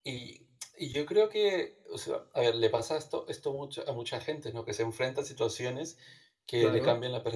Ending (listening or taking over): listening